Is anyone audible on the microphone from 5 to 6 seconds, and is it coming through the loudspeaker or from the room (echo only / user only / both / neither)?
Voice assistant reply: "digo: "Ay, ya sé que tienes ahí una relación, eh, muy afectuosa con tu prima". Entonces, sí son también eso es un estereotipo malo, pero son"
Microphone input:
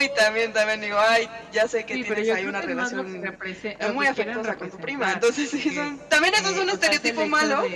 both